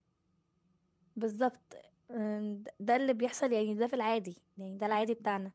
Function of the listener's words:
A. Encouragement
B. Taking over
A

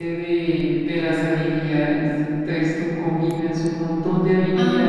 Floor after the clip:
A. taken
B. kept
A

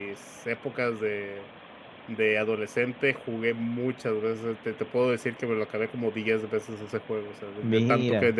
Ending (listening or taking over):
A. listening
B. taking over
A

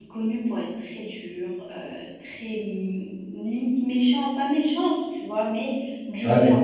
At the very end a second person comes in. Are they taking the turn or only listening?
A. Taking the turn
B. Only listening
B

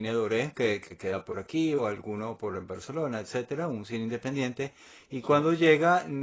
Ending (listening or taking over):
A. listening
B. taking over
A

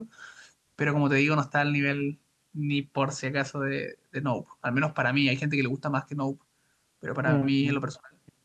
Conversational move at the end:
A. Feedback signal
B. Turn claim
B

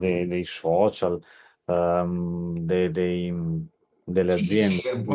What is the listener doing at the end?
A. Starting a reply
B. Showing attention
A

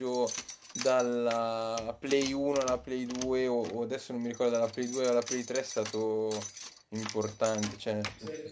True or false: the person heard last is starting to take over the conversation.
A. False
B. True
A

